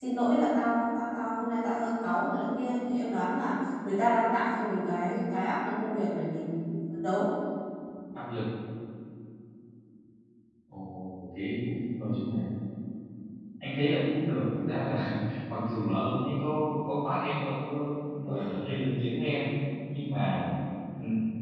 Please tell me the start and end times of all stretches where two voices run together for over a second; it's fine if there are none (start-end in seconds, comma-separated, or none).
none